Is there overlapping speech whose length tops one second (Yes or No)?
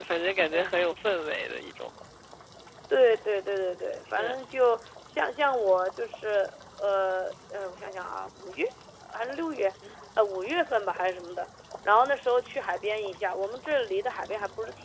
No